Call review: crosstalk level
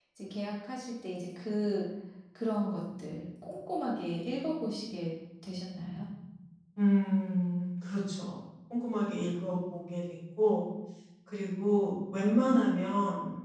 none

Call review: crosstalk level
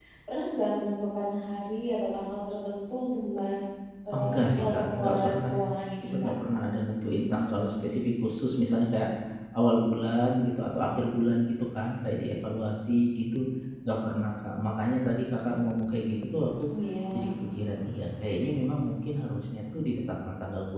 present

